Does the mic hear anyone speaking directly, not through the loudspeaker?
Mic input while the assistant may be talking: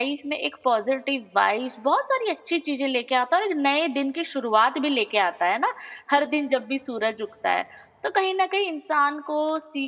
Yes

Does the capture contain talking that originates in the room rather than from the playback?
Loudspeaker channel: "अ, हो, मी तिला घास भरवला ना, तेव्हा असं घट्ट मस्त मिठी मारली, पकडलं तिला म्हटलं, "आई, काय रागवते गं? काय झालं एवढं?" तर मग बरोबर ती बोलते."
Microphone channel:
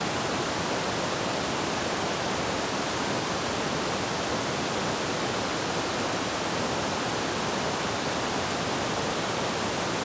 No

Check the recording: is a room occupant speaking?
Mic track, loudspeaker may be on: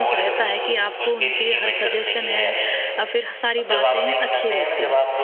Yes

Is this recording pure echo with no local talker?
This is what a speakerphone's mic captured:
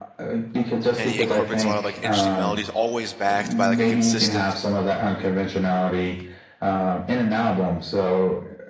No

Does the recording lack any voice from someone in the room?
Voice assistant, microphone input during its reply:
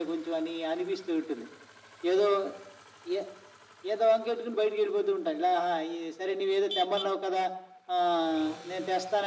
Yes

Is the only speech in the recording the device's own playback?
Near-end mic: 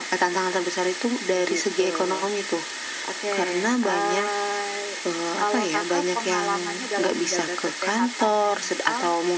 Yes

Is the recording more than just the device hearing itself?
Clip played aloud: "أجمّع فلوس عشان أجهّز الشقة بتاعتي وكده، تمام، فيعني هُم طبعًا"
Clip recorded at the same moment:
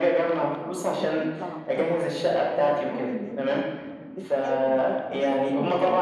Yes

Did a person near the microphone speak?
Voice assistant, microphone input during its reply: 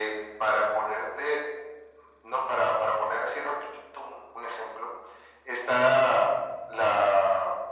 No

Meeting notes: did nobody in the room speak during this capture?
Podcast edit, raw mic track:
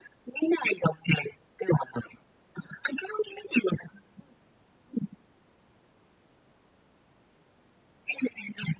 Yes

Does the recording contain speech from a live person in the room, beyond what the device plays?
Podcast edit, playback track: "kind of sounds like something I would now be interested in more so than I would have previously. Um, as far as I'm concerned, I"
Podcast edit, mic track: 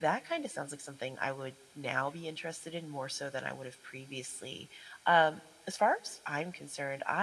No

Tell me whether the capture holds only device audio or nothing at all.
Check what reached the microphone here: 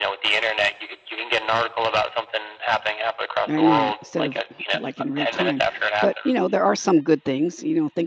No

